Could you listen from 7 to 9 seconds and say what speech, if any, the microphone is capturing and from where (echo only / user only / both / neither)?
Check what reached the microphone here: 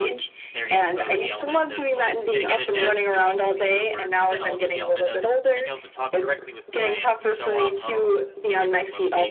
both